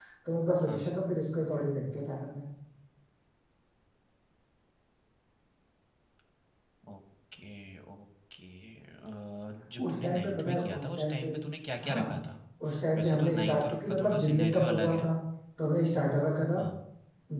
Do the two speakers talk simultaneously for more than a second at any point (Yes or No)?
Yes